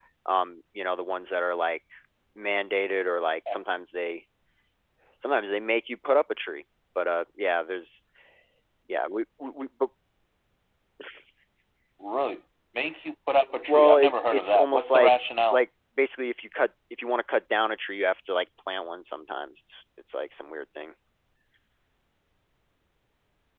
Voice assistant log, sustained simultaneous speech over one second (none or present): present